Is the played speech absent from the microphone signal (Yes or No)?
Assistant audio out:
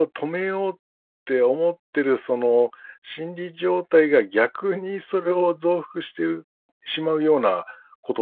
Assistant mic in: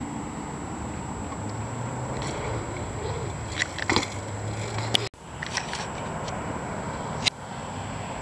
Yes